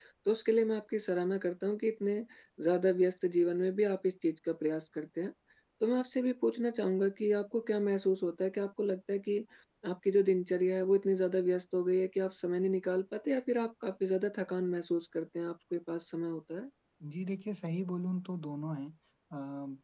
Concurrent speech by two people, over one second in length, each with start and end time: none

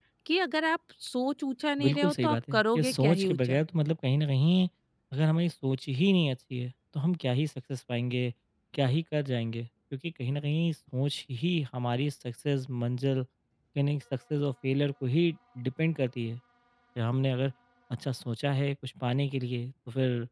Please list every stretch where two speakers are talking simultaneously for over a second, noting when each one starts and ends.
1.8-3.6

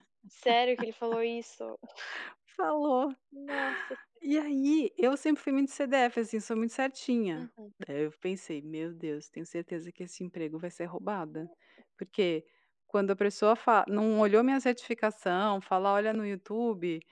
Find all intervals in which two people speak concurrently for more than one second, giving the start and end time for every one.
none

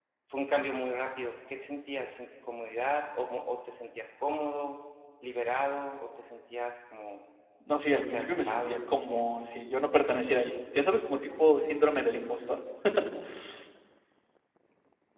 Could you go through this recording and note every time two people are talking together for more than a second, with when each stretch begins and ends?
7.9-9.4

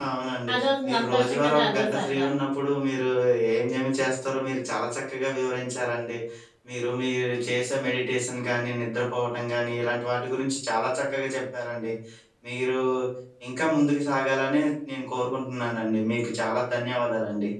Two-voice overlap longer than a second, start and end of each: 0.5-2.3

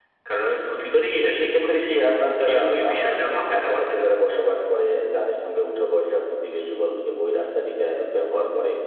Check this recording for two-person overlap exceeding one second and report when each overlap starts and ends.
1.2-4.1

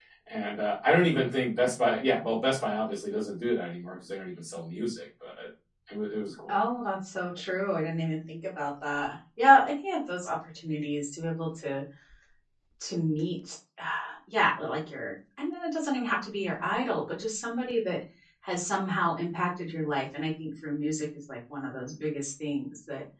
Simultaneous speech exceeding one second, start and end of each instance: none

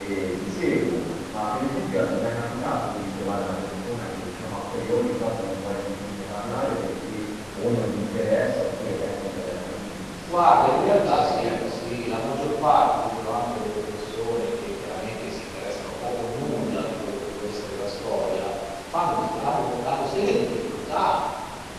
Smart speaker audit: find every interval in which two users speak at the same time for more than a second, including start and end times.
10.3-11.8

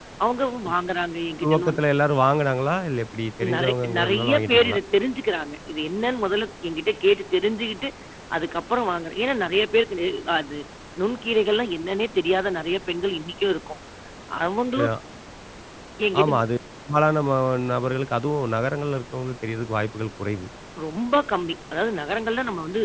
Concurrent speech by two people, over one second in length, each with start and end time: 3.5-4.8

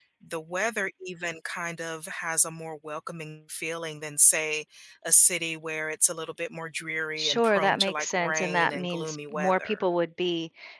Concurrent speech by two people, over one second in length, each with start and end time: 7.2-9.8

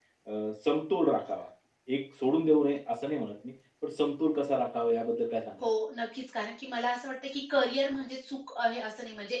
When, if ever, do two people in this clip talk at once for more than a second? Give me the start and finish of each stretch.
none

